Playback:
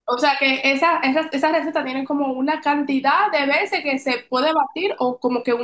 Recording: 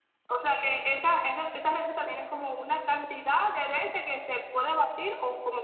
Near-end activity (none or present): none